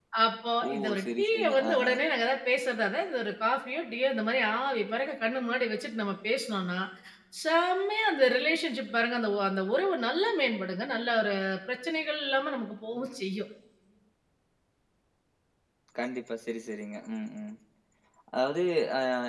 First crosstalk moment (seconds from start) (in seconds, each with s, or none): 0.7 s